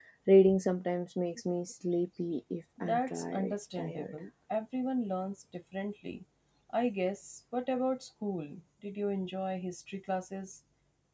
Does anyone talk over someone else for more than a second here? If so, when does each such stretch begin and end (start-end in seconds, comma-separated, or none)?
2.8-4.1